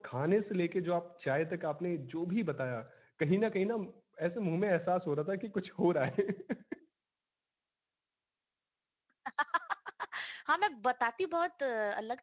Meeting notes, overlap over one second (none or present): none